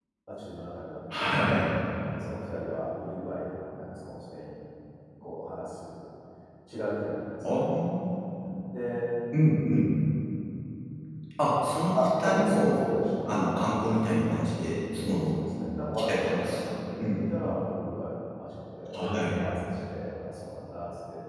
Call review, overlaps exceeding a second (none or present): present